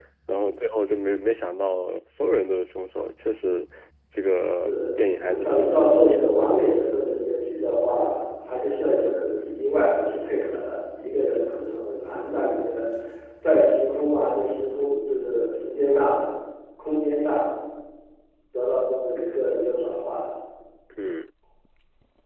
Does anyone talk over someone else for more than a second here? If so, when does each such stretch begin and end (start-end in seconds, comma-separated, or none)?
4.6-6.4